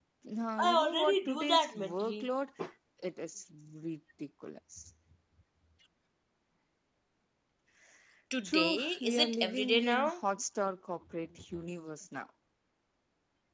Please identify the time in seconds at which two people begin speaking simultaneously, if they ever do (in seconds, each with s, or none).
0.6 s